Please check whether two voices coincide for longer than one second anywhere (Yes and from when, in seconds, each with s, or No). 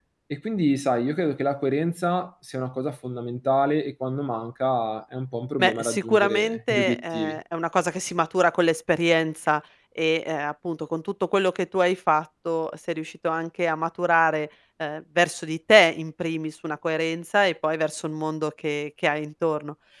Yes, from 5.6 s